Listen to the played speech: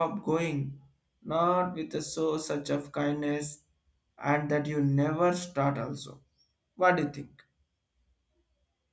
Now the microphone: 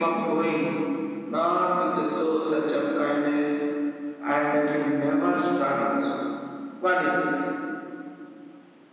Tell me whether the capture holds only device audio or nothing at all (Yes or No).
Yes